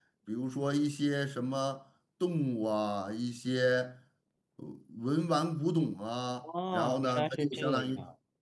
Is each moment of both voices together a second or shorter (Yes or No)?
No